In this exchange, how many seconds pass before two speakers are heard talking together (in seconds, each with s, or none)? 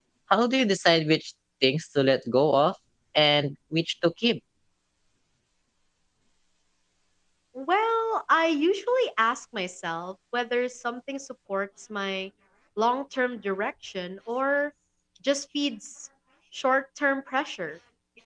none